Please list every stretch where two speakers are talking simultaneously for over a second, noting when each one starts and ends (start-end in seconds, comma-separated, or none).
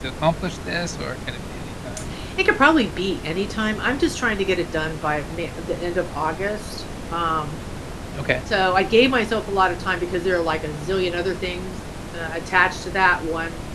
none